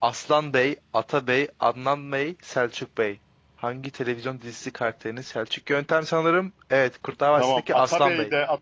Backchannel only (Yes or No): No